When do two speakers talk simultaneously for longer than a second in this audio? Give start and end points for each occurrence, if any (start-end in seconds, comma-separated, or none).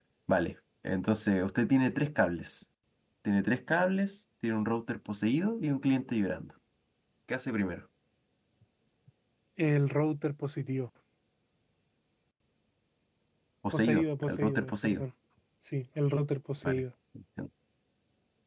13.7-15.0